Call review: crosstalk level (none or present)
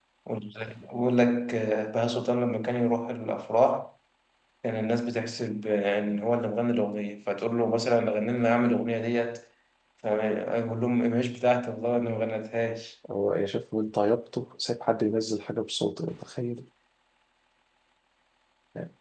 none